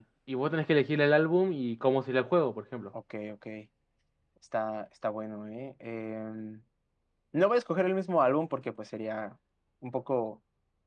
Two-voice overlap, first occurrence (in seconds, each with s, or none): none